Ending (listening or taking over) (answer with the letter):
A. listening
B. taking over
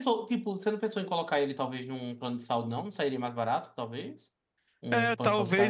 B